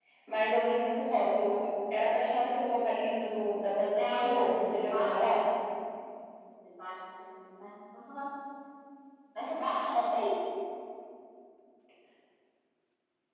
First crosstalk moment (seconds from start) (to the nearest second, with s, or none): 4 s